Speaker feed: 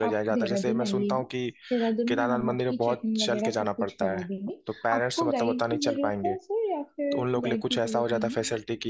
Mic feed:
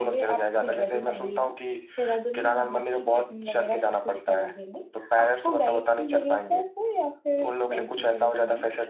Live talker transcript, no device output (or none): none